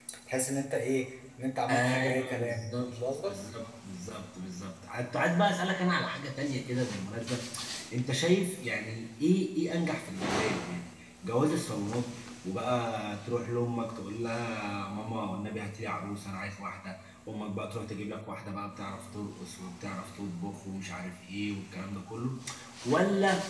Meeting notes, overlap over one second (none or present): present